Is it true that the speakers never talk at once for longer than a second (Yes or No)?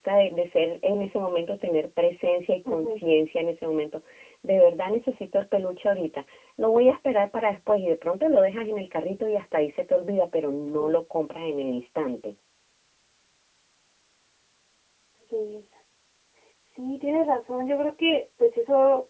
Yes